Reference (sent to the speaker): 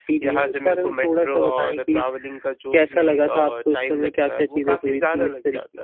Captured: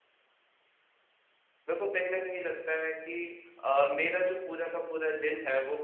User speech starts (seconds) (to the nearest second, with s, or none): 2 s